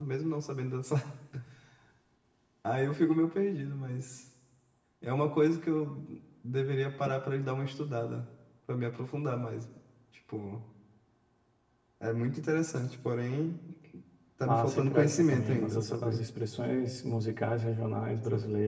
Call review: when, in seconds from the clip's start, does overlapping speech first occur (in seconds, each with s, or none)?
14.5 s